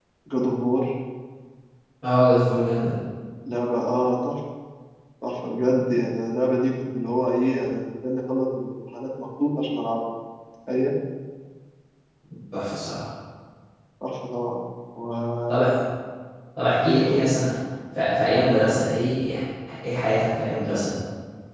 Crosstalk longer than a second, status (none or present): none